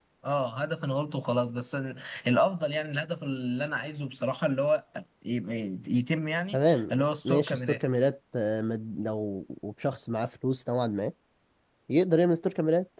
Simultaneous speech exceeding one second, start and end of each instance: 6.5-7.8

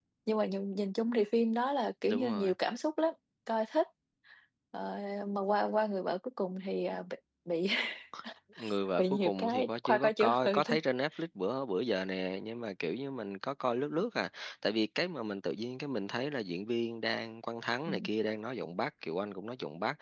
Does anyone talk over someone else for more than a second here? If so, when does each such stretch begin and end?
9.0-10.8

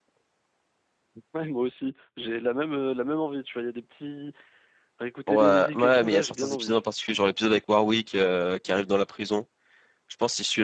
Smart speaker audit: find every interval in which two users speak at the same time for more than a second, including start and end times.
5.3-6.8

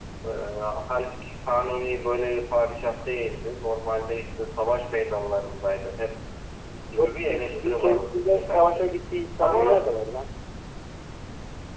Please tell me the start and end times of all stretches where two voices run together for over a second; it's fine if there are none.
7.0-8.8

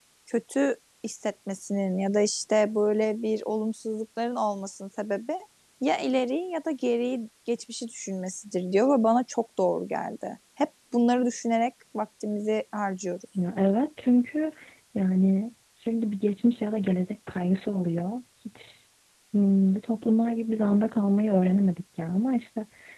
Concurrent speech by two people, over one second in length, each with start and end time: none

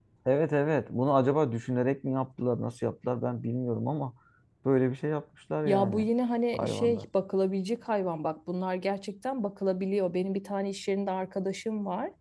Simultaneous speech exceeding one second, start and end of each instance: none

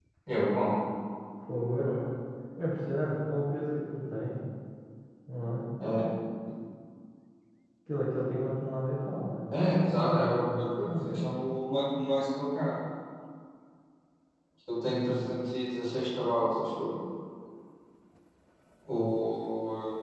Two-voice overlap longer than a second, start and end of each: 9.6-11.4

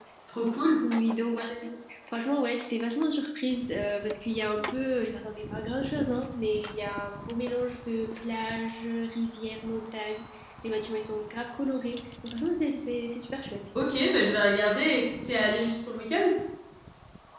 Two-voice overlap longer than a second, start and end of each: none

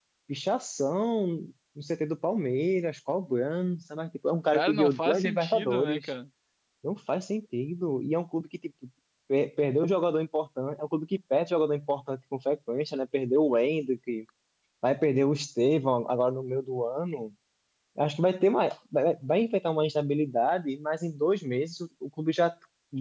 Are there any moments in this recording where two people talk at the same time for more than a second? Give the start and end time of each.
4.5-6.1

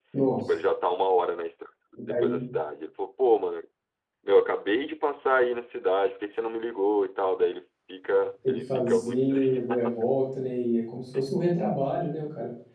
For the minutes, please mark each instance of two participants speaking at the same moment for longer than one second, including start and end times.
8.5-9.9

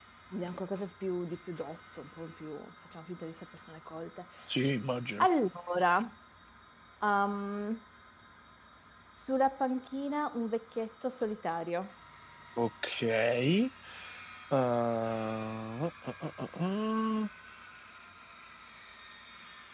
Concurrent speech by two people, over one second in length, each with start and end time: none

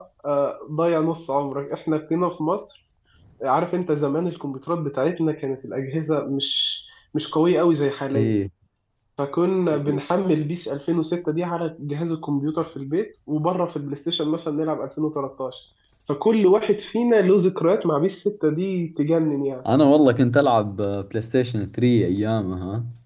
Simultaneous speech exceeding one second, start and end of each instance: none

